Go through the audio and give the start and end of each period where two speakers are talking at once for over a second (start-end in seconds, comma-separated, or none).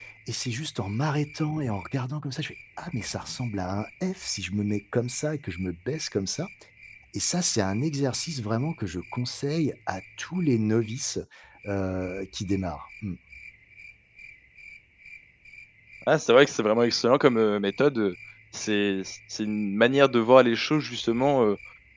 none